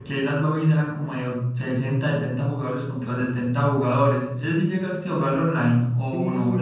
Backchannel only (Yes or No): No